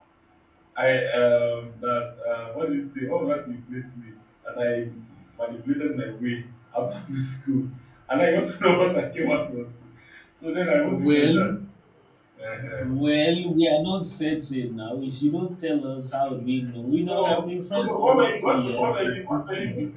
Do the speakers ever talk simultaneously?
Yes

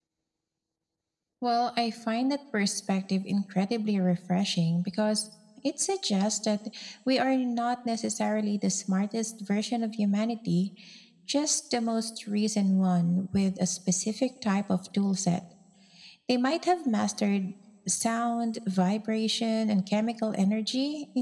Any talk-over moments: No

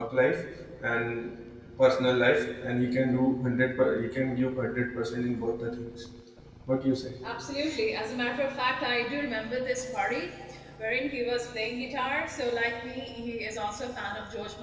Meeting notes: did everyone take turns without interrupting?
Yes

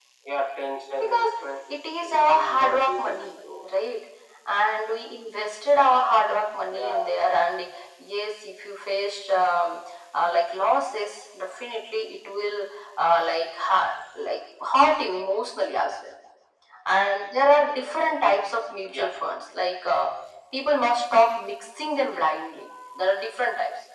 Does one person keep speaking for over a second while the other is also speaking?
Yes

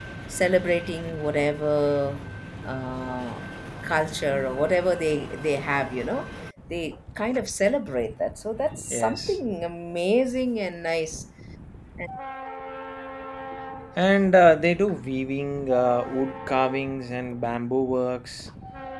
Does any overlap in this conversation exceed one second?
No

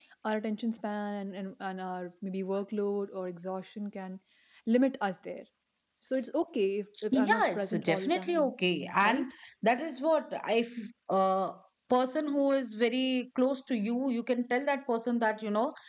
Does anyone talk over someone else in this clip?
Yes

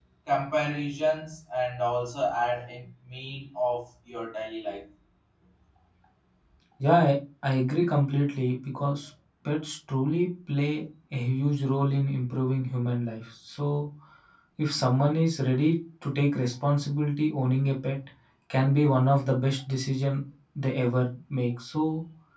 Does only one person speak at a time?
Yes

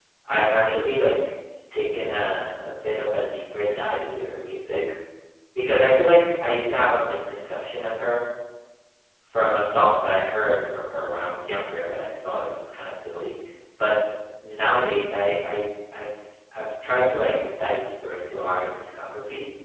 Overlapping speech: No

